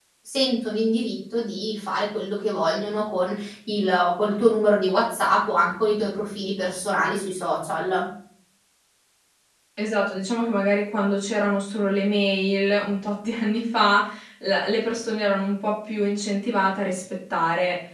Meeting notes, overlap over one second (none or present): none